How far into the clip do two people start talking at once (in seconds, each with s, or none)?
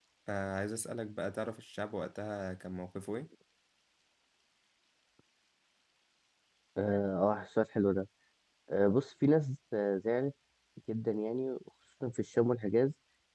none